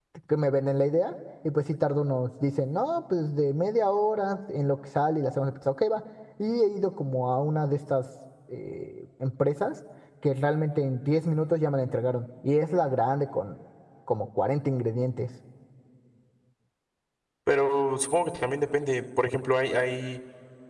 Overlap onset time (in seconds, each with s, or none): none